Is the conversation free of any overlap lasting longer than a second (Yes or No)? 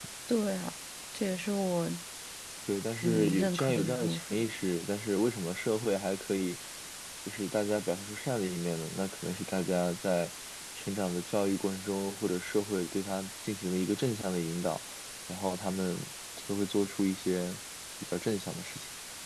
No